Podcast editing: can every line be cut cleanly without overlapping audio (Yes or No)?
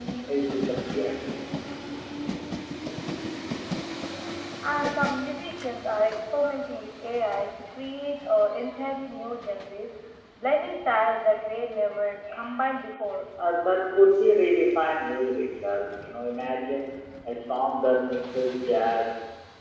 Yes